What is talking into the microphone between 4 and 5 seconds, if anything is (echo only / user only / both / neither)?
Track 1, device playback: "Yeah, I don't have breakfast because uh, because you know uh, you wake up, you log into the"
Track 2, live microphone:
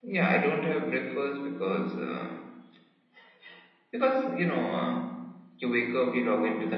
echo only